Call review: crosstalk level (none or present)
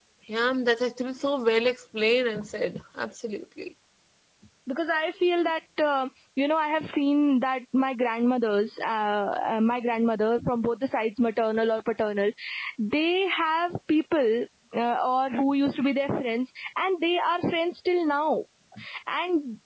none